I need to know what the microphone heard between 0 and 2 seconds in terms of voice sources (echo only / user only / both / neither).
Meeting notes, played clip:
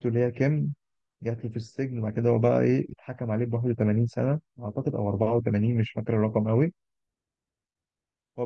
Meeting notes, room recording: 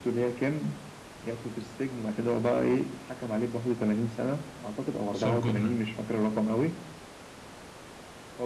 echo only